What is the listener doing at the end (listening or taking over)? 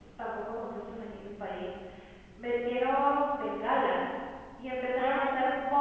listening